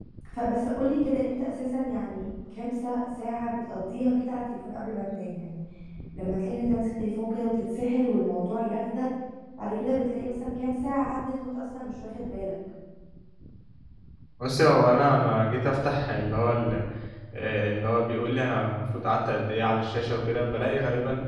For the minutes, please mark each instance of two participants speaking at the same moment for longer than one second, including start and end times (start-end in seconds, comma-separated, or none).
none